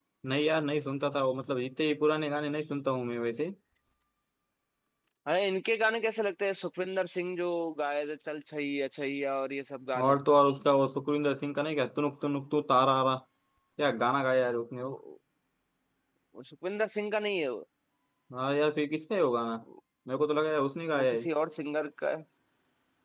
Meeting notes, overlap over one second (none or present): none